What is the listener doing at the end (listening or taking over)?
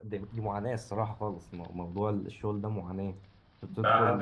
taking over